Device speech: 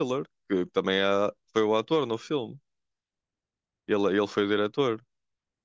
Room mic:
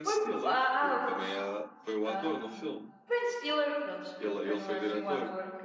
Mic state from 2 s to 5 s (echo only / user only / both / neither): both